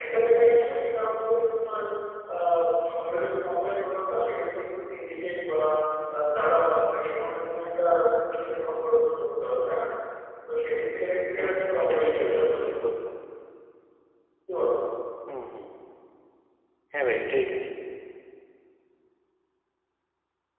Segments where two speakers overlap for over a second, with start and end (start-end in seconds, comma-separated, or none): 11.4-12.7